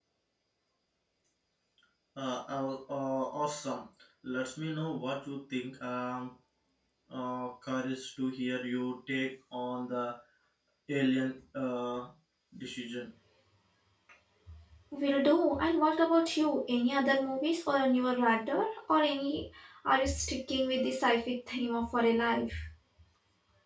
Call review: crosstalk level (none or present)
none